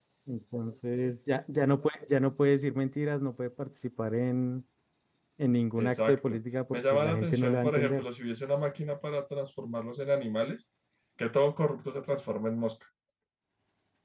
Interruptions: present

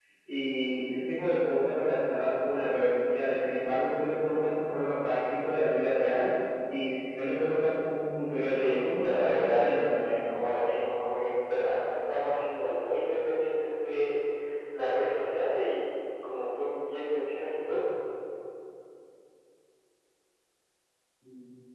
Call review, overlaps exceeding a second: present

